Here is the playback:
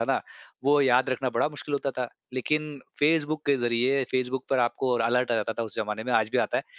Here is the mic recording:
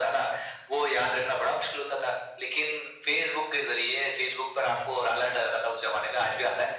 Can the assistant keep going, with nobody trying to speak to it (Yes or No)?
Yes